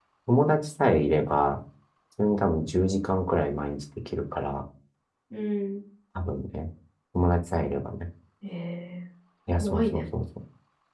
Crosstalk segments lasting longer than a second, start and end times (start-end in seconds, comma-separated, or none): none